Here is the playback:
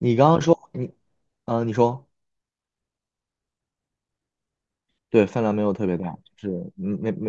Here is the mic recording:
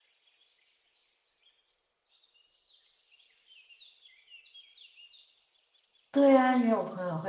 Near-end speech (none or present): present